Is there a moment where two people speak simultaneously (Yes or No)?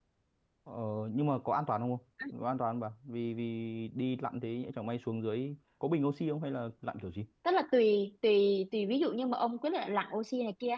No